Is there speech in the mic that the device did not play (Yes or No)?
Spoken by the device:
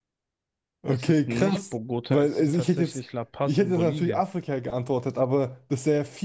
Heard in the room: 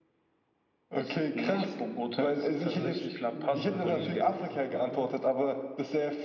Yes